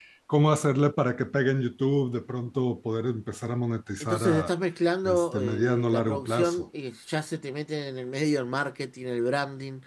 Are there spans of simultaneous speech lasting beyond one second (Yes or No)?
Yes